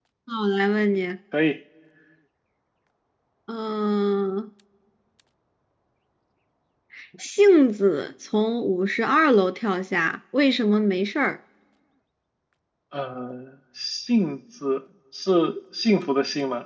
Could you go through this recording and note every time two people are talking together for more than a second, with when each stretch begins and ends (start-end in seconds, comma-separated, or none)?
none